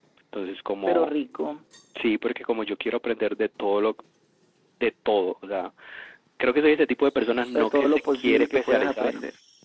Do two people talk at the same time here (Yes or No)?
Yes